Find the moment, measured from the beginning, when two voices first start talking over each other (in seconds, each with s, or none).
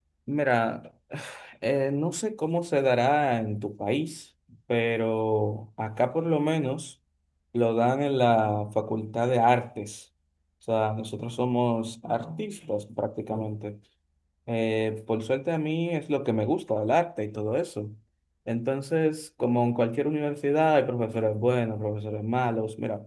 none